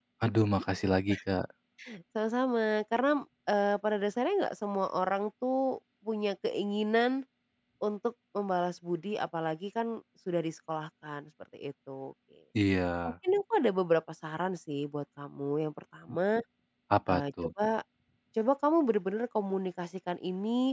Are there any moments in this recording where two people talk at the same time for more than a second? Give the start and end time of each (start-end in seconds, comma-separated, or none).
none